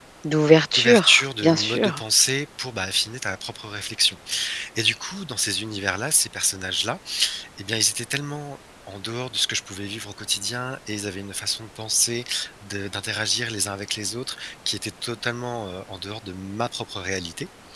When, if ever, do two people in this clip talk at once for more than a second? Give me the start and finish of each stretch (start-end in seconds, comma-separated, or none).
0.8-2.0